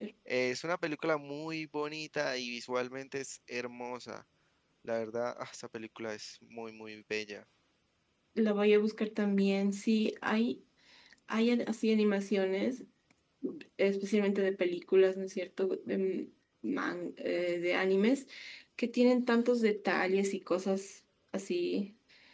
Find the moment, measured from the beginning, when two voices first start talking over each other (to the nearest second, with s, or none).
none